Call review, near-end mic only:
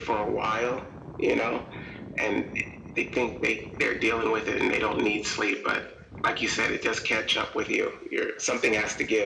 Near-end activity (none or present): none